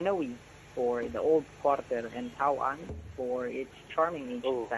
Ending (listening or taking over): taking over